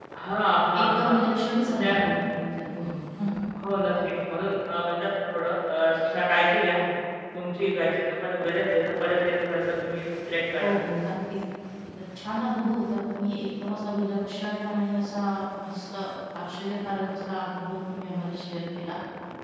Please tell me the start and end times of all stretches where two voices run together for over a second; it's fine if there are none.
none

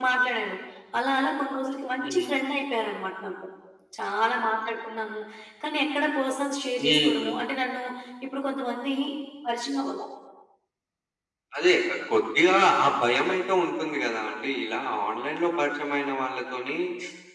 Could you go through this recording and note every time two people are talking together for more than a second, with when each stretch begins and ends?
none

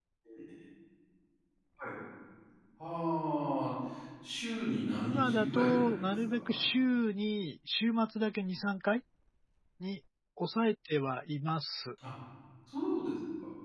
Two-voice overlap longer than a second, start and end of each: 5.0-6.6

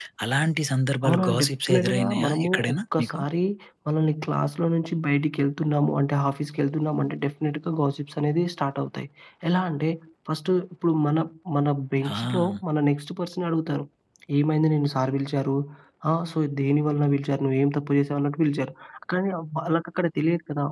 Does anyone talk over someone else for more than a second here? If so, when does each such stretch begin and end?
1.0-3.2

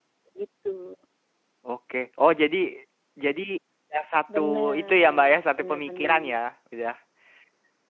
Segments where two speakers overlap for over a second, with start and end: 4.3-6.4

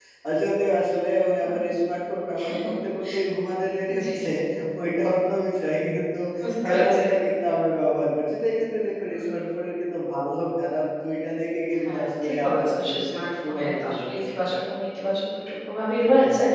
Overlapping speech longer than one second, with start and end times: 11.8-14.1

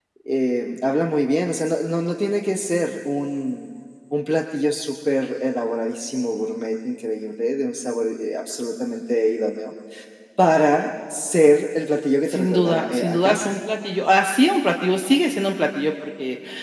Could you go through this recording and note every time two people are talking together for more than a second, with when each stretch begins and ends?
12.3-13.6

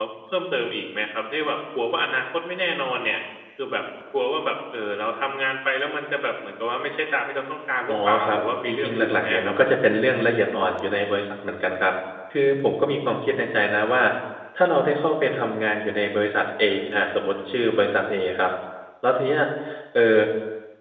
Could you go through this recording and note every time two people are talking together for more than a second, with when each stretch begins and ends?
7.9-9.7

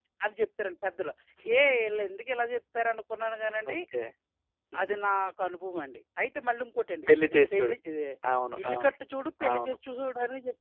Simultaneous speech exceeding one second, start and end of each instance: none

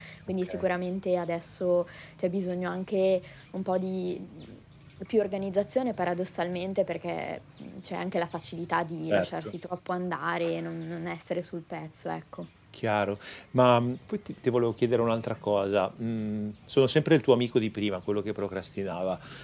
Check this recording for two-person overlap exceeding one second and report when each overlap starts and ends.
none

